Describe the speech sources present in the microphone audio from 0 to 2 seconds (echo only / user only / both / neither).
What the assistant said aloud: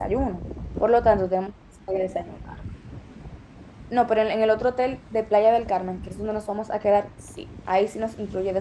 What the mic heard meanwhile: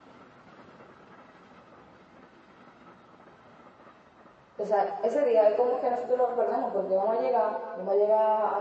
neither